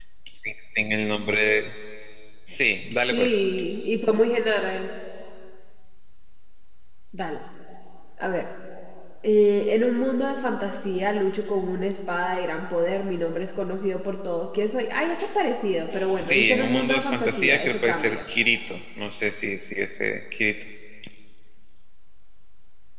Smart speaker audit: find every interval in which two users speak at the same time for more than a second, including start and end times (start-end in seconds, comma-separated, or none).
15.9-18.2